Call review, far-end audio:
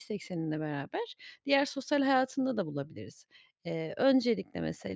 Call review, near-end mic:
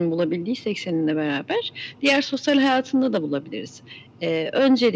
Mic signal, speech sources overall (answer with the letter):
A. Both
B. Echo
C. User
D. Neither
B